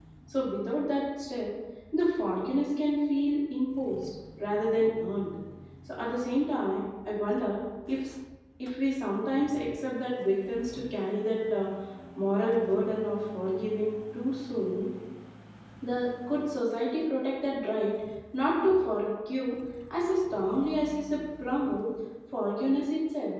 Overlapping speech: No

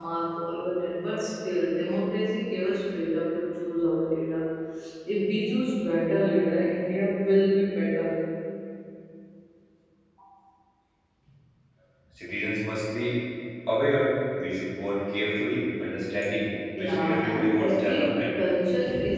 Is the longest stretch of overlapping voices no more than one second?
No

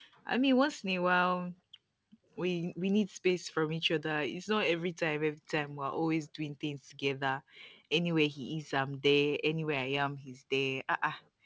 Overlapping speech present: No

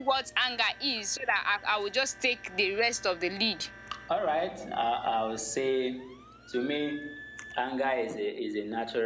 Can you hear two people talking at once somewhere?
No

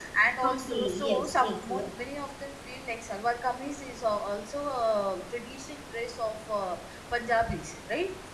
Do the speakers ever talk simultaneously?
Yes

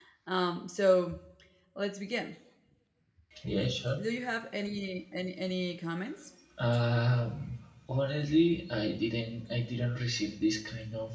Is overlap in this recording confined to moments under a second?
Yes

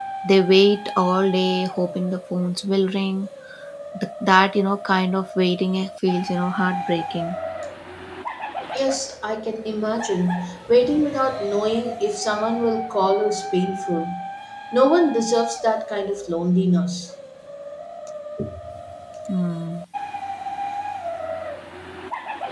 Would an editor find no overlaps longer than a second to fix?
Yes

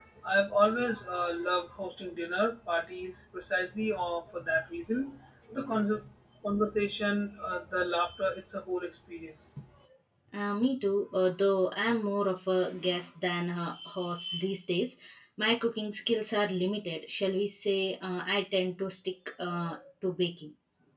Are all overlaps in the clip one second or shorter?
Yes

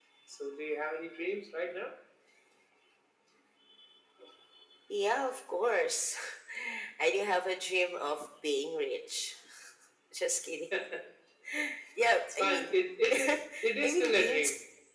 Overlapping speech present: Yes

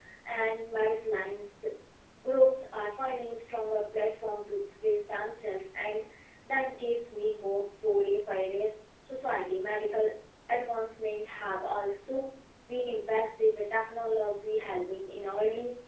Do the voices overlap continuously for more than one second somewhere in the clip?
No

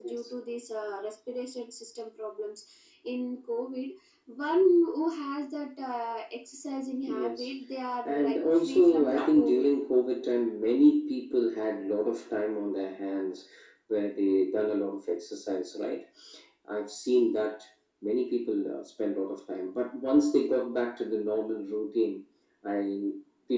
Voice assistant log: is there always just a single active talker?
No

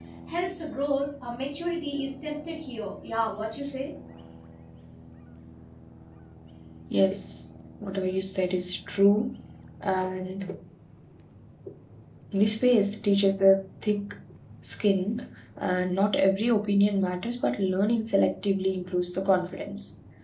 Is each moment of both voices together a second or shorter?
Yes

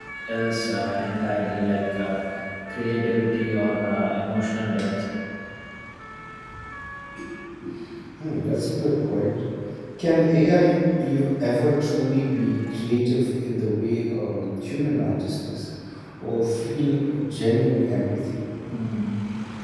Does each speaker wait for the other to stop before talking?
Yes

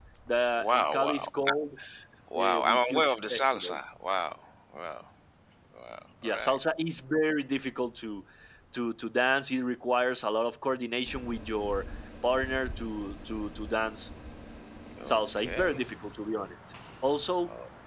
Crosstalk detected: Yes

